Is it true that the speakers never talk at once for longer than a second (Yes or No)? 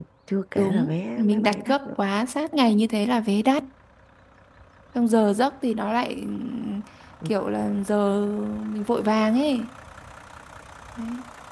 No